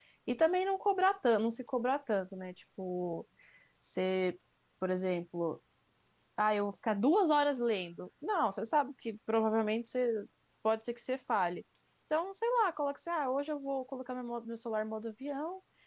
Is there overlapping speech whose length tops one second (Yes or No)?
No